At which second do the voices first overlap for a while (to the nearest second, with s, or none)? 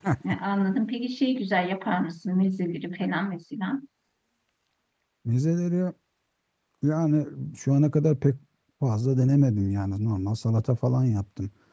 none